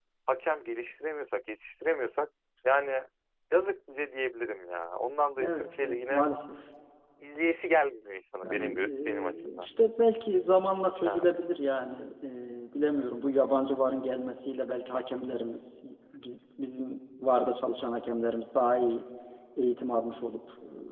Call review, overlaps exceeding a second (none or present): present